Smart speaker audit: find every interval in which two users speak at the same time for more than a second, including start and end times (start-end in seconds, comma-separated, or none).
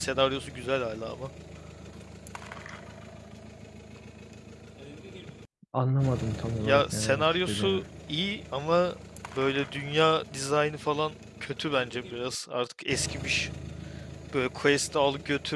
6.6-7.8